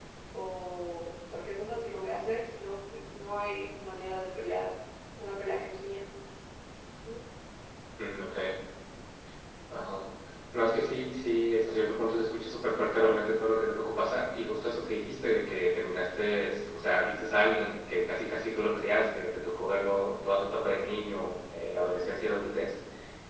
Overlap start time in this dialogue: none

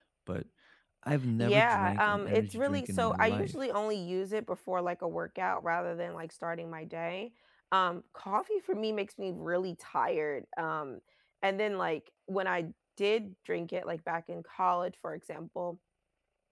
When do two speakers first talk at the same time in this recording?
1.4 s

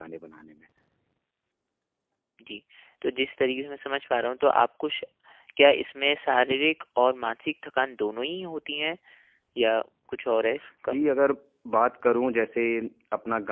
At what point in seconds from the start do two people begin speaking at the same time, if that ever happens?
none

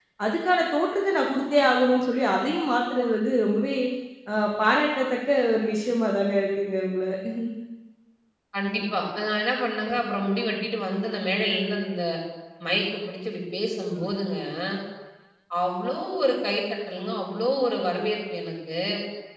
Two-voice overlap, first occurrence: none

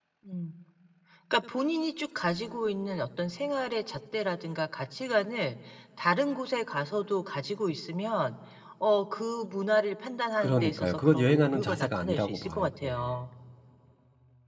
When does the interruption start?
10.4 s

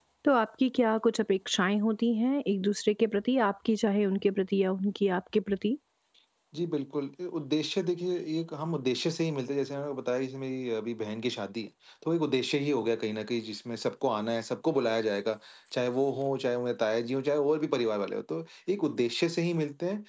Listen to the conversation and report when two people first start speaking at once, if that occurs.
none

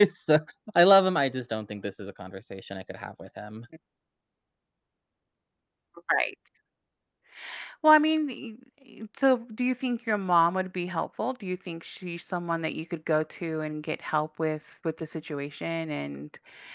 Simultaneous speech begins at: none

